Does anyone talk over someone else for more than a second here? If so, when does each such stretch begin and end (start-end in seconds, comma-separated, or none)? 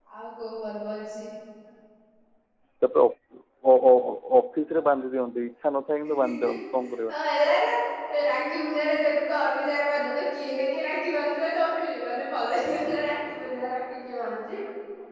none